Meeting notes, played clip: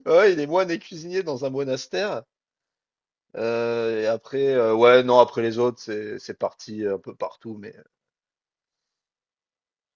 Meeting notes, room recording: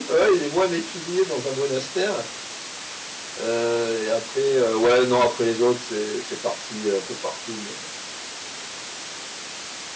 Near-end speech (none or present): none